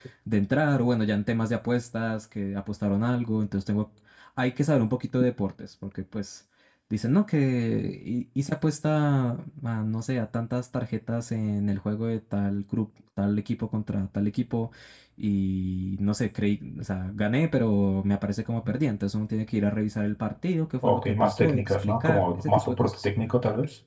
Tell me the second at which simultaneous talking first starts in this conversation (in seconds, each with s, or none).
20.8 s